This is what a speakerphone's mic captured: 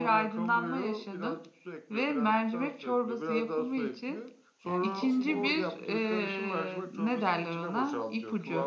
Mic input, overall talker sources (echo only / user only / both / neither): both